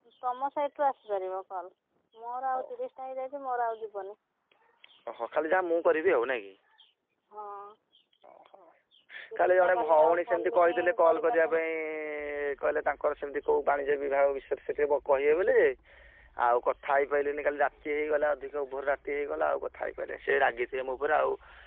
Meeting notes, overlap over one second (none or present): present